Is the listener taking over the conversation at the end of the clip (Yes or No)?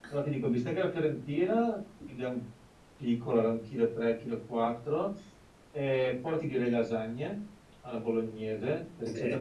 No